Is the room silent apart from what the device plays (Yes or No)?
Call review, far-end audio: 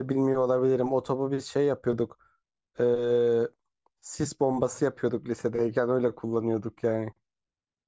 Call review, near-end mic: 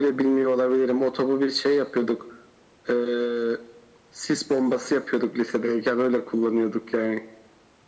Yes